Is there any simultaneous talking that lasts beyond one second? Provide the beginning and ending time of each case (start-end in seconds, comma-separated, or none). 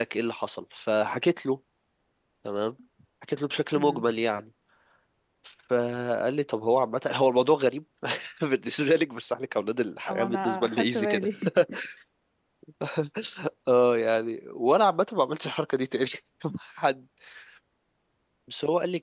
10.1-11.3